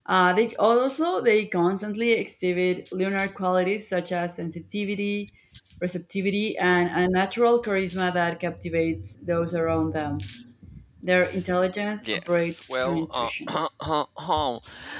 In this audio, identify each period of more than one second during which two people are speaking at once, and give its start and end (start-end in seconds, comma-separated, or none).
12.1-13.6